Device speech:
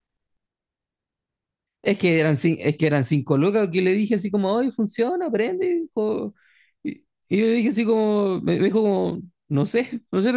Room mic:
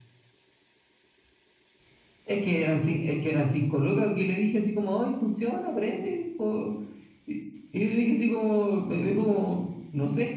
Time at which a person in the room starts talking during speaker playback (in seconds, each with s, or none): none